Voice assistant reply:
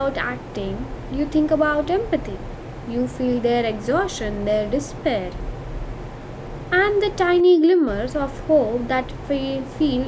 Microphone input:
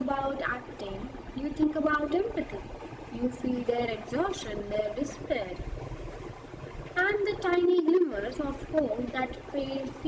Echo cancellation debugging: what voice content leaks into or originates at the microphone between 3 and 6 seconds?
echo only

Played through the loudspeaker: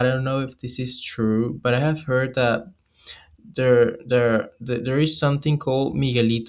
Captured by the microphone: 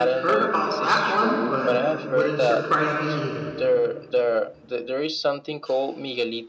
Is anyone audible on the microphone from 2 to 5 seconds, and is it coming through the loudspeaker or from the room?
both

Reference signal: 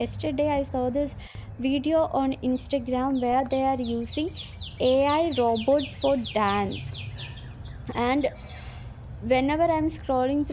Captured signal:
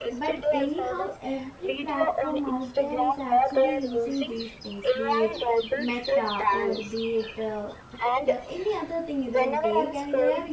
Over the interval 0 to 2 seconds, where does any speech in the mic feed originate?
both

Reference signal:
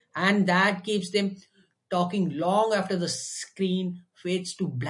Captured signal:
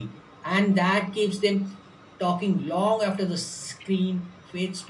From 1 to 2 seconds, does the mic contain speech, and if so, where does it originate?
echo only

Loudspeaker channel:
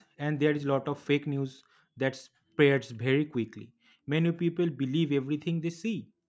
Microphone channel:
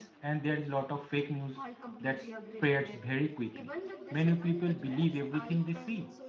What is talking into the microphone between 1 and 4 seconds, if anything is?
both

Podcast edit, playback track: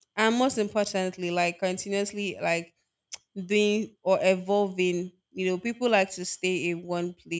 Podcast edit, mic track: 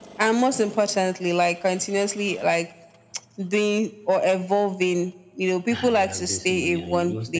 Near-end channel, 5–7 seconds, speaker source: both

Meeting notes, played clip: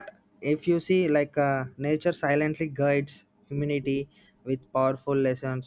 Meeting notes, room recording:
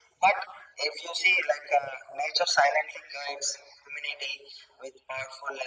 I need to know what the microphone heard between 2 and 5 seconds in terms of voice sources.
echo only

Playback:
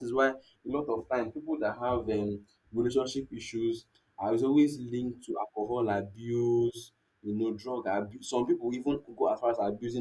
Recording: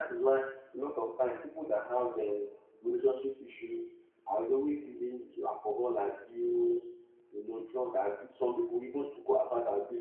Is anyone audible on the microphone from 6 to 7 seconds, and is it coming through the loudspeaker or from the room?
echo only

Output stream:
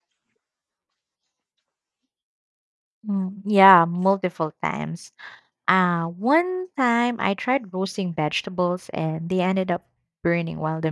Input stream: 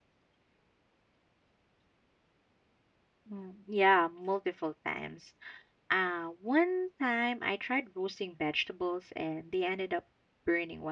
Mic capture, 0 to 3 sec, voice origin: neither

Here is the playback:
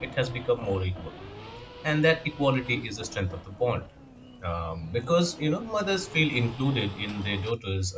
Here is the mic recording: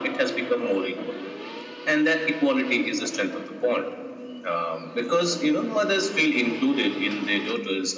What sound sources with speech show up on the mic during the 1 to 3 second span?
echo only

